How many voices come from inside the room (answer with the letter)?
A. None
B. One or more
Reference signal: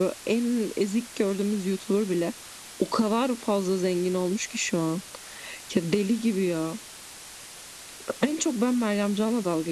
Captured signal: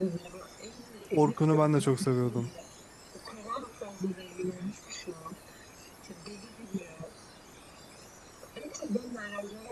B